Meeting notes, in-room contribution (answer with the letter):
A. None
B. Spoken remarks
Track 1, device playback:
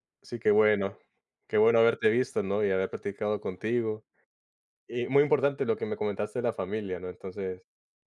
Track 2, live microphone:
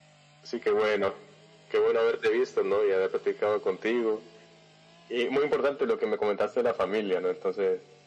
A